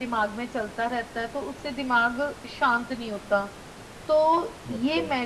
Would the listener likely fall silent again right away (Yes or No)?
Yes